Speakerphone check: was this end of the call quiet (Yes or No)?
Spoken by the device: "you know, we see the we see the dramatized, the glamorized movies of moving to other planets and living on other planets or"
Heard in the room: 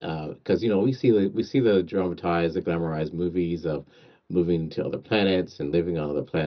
Yes